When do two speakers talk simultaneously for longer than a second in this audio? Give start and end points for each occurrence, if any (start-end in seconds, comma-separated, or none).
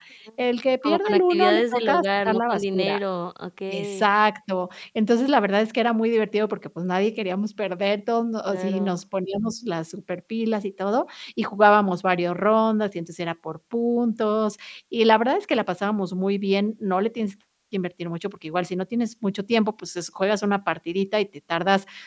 0.8-3.0